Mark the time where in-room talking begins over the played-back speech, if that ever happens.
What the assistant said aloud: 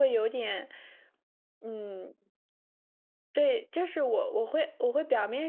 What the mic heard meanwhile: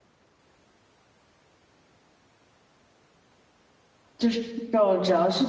4.2 s

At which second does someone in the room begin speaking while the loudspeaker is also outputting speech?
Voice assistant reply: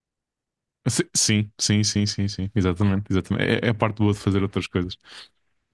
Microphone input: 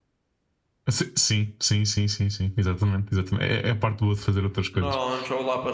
4.7 s

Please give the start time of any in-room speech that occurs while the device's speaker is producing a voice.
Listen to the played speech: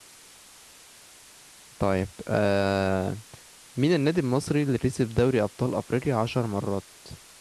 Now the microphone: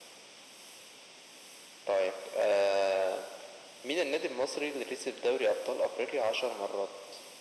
none

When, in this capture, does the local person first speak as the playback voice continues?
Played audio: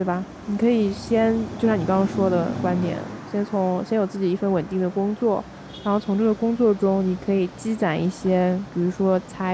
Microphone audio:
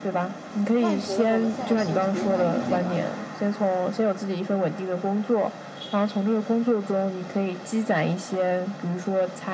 0.7 s

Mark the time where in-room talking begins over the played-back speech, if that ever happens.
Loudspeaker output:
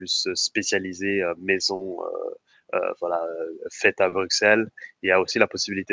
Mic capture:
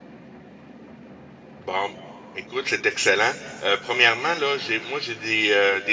1.6 s

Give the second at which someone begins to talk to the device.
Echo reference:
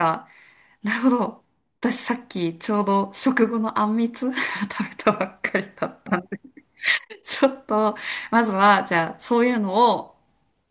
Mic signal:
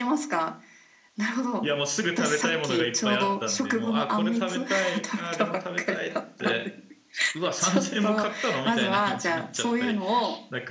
1.6 s

